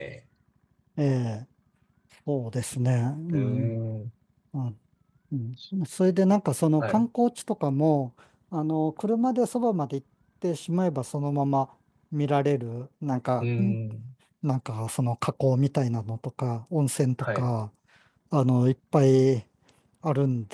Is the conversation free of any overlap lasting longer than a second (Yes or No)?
Yes